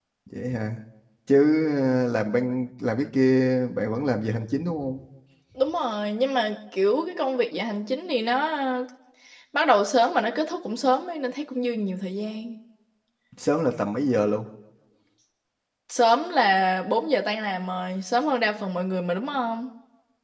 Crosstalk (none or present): none